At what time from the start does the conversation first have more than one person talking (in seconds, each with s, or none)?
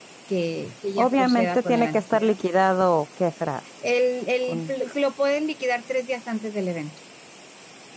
1.0 s